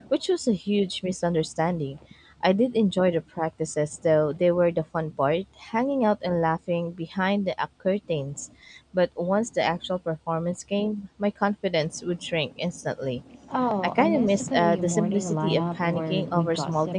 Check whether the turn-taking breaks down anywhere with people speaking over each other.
Yes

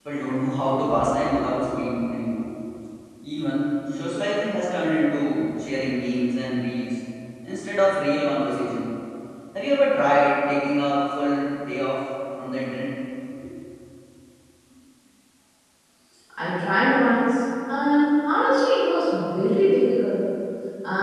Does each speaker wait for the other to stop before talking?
Yes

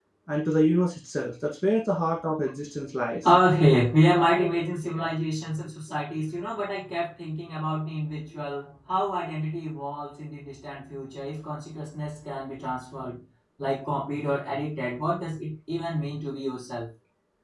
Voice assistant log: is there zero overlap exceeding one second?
Yes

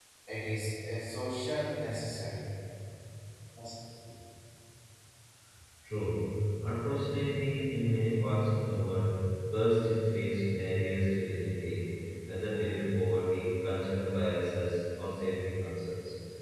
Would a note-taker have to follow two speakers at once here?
No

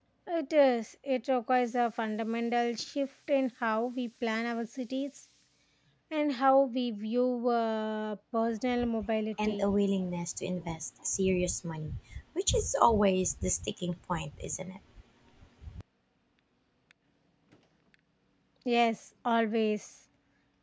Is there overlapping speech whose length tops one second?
No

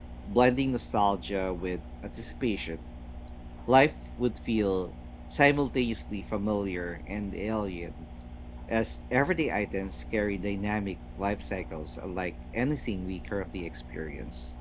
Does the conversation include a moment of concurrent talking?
No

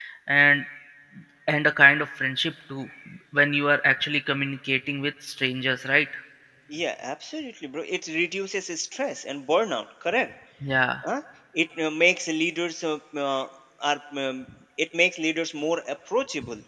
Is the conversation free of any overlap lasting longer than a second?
Yes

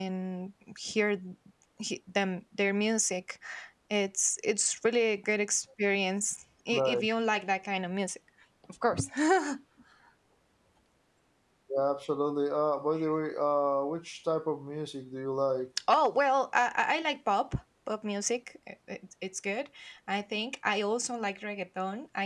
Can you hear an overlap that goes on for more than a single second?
No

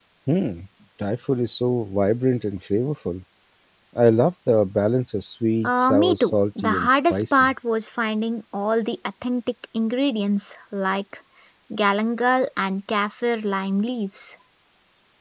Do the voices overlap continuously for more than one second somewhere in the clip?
Yes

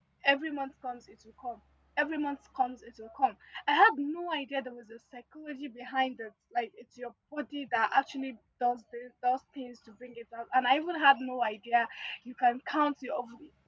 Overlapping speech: No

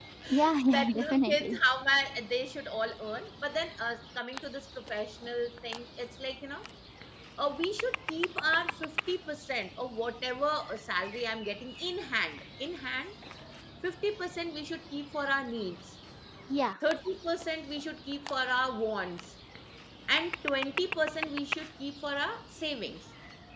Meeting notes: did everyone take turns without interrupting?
No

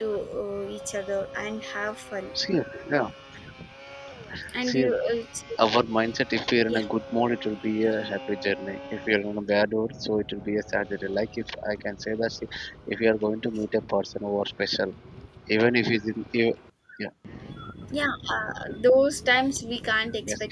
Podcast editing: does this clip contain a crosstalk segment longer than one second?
No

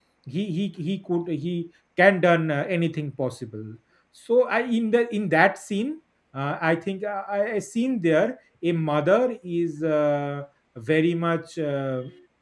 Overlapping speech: No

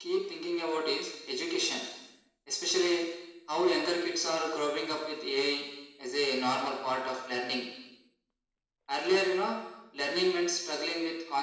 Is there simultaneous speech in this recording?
No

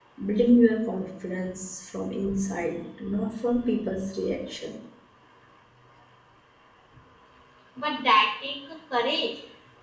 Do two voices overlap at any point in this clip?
No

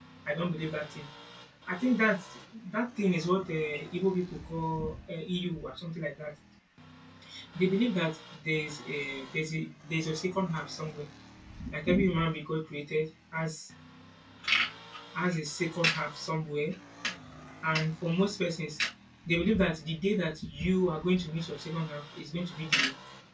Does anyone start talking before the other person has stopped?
No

